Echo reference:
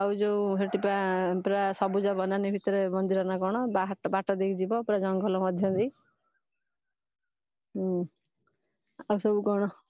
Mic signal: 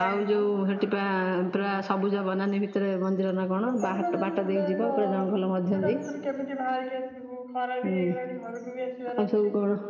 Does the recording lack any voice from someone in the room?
No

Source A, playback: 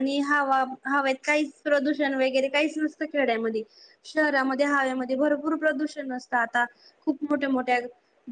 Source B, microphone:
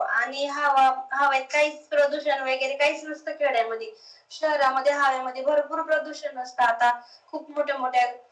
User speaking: No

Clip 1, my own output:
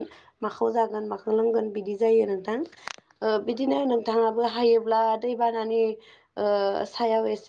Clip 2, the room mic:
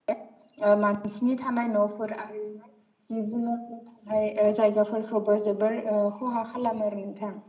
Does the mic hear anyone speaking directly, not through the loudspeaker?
Yes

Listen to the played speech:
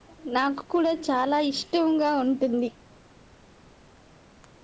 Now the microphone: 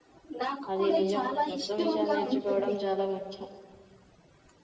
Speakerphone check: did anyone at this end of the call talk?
Yes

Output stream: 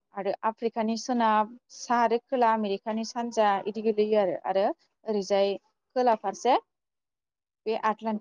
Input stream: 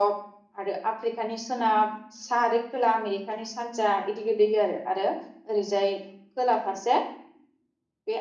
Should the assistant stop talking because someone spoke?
No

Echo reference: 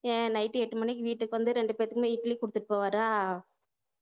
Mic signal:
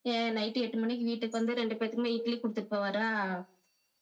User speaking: No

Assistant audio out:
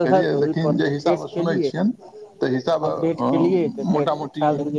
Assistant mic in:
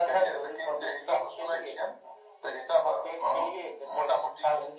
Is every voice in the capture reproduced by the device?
Yes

